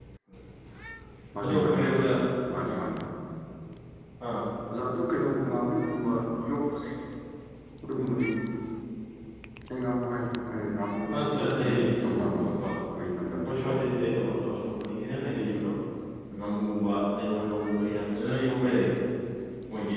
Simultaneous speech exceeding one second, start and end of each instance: 11.2-12.5

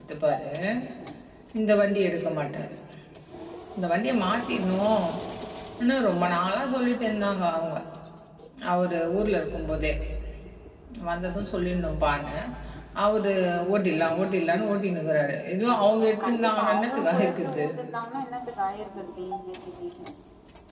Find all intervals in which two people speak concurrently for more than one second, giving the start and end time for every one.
16.2-17.6

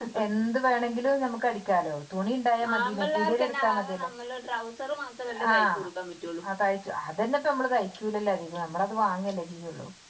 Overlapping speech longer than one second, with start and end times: 2.8-4.1

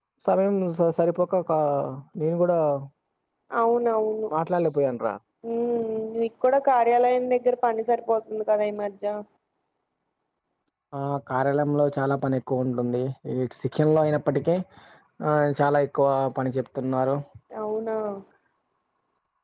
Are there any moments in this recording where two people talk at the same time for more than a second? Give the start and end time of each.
none

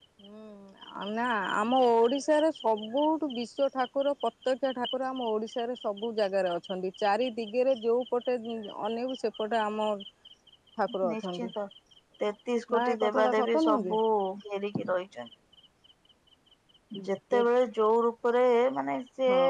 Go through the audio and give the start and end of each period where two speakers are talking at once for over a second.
12.8-14.0

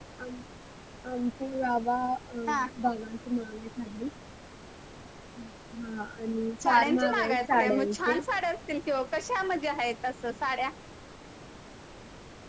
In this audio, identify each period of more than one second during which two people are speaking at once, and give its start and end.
6.6-8.2

